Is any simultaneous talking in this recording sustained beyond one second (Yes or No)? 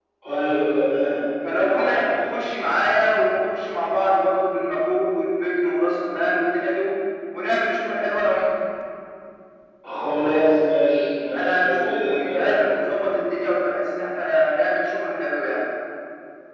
Yes